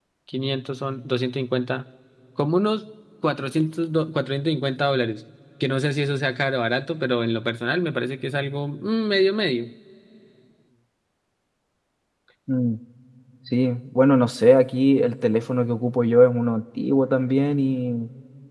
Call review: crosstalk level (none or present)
none